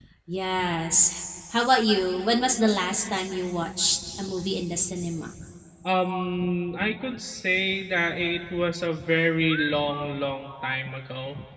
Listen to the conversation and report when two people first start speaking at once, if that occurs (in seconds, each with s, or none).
none